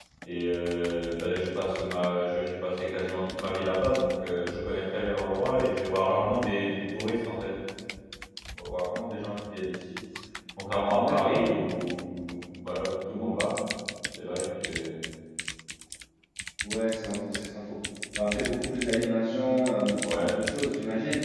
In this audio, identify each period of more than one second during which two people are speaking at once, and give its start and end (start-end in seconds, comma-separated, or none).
none